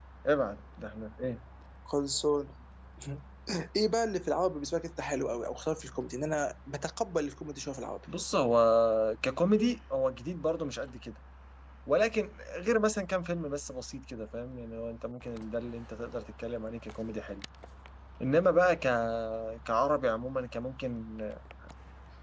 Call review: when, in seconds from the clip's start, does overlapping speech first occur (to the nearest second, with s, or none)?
none